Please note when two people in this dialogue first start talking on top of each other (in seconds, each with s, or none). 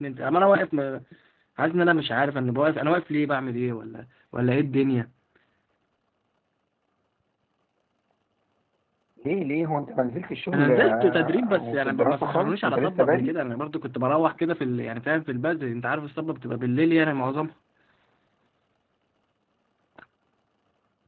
10.5 s